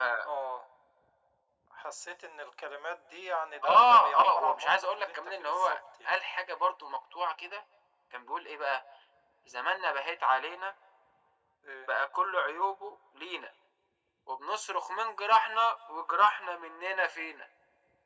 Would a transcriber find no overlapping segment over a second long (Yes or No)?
No